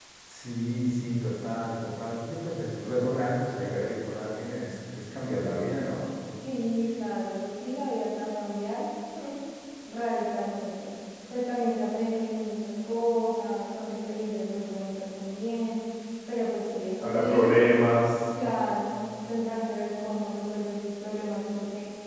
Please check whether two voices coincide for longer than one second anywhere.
No

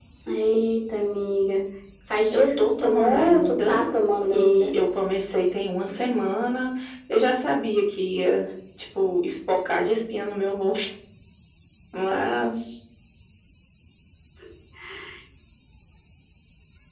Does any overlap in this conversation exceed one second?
Yes, from 2.3 s

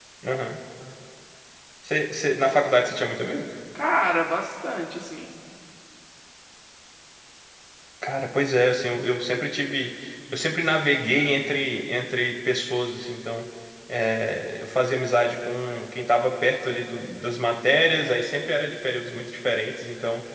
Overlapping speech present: No

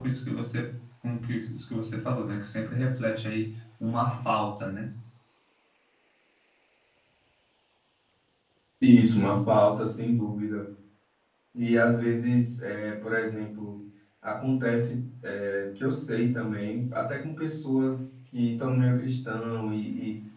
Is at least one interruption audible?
No

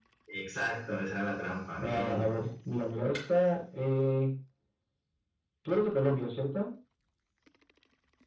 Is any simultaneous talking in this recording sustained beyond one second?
No

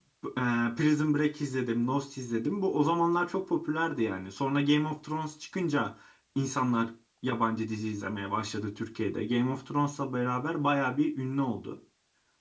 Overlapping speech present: No

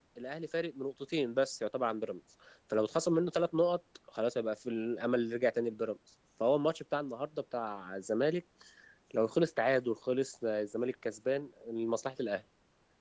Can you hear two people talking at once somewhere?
No

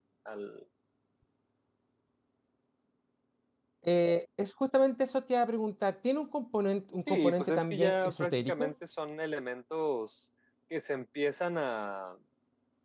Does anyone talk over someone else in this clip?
Yes, from 7.1 s

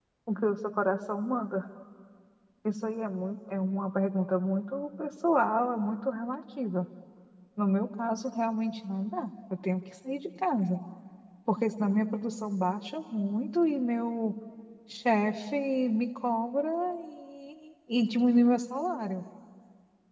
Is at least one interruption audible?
No

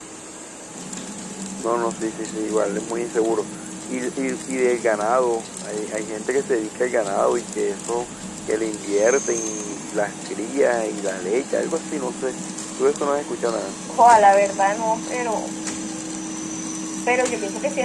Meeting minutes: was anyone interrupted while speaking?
No

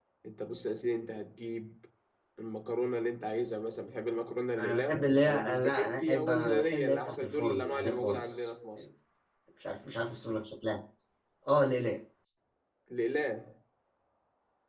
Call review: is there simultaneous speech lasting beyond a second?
Yes, from 4.6 s

